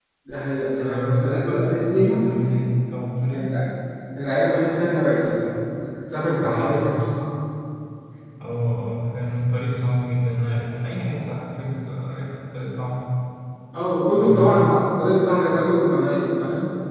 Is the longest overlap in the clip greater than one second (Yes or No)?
Yes